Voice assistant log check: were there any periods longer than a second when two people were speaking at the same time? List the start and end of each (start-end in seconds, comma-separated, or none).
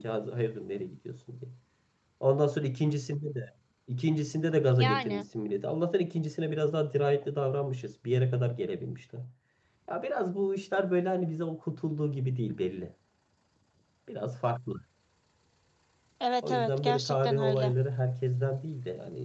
16.4-17.7